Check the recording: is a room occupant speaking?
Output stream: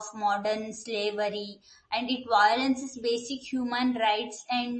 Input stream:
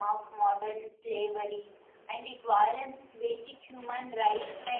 No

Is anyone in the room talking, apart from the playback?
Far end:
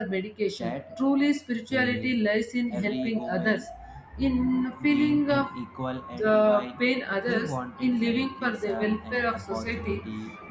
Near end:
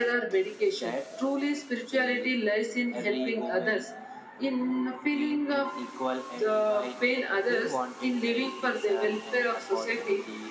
No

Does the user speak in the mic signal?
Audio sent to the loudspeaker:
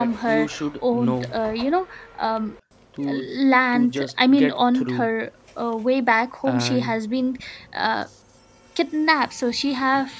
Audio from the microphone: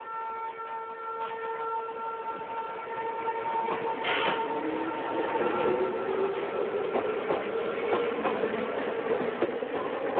No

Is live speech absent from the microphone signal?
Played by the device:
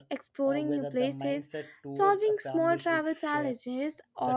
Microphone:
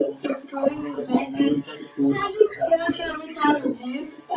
Yes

